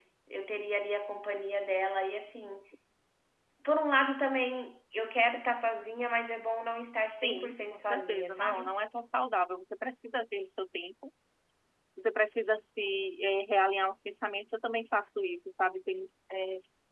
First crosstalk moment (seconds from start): 7 s

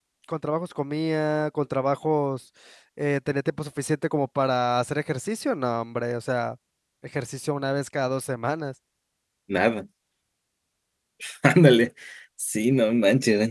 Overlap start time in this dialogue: none

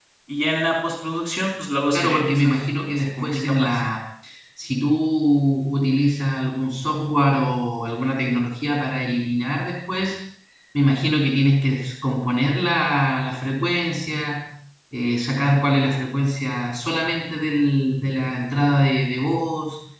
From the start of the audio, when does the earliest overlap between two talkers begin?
2 s

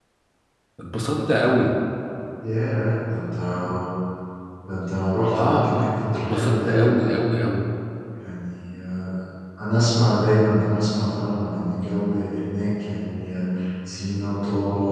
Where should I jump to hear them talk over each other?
5 s

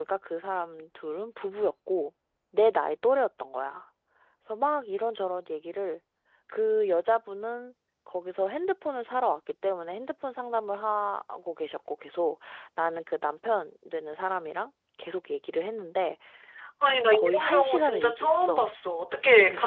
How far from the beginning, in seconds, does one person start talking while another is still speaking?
17 s

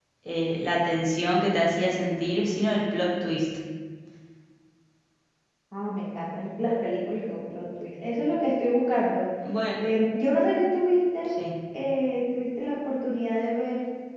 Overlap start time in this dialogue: none

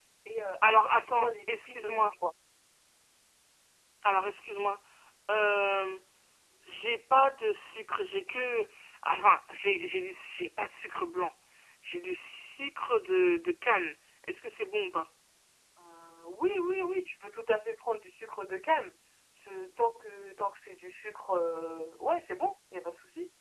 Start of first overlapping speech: 1 s

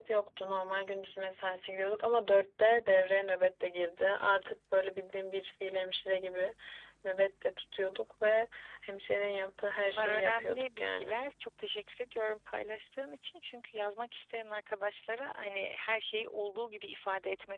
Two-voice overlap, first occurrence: 10 s

